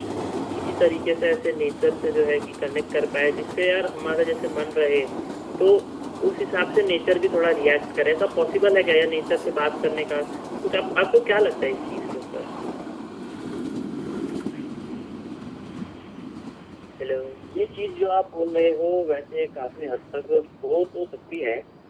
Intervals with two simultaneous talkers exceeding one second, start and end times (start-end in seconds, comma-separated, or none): none